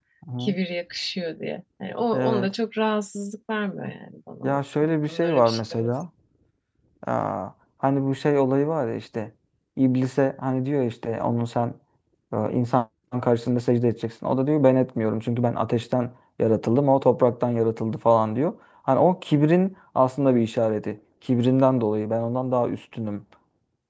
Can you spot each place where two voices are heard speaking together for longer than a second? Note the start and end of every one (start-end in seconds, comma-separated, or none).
4.4-5.9